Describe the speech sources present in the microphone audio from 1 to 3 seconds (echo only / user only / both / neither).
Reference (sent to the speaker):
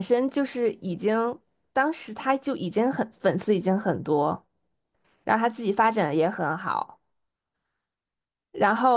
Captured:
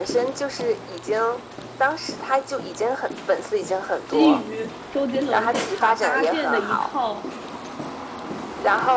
echo only